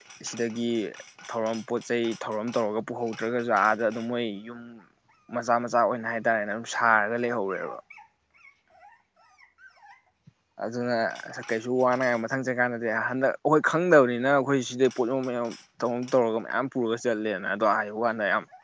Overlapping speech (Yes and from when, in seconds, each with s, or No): No